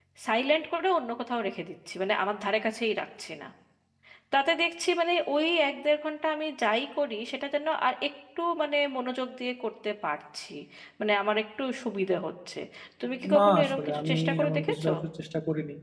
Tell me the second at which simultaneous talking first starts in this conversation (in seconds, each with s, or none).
13.4 s